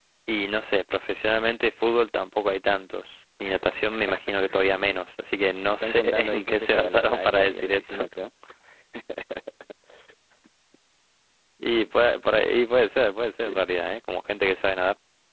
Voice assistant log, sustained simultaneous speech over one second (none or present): present